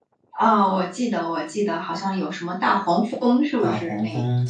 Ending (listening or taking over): taking over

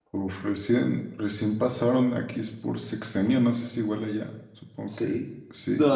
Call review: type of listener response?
taking over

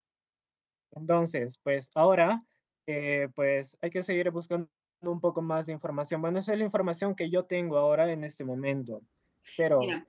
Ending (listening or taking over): taking over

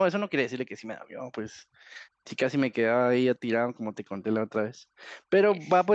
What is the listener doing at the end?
listening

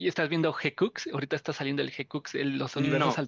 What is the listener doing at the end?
taking over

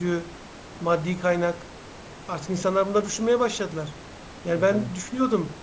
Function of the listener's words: listening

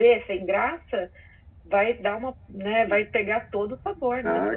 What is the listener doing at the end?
taking over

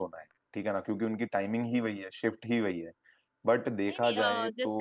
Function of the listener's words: taking over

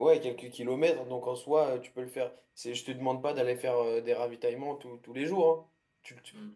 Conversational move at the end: listening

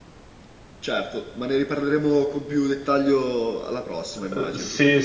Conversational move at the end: taking over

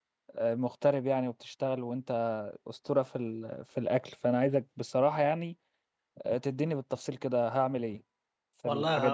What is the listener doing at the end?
taking over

